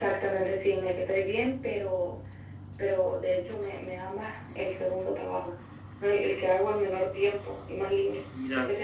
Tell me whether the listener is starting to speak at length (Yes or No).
No